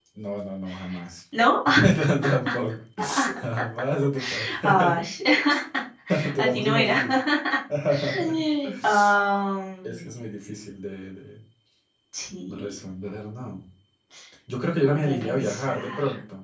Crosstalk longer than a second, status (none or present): present